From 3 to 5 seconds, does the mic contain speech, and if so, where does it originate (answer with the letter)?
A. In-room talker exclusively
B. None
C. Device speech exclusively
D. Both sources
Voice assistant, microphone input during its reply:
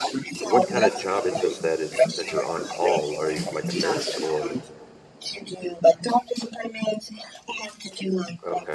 D